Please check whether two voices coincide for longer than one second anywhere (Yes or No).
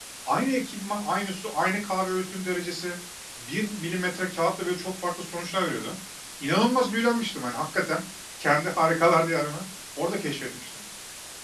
No